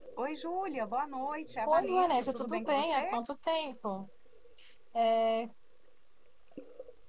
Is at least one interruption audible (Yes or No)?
Yes